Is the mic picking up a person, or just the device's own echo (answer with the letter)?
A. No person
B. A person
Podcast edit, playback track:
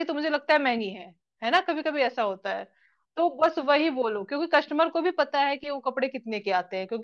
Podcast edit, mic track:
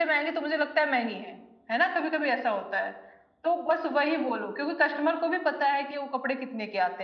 A